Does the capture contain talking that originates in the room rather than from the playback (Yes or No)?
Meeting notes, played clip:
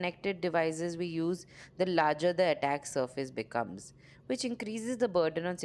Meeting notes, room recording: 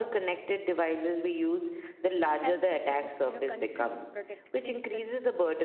Yes